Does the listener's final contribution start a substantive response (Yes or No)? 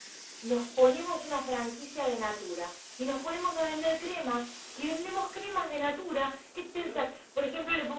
No